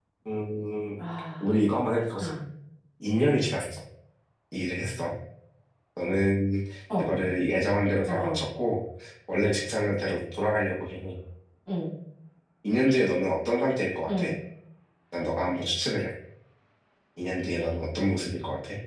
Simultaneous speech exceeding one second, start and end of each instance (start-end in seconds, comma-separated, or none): none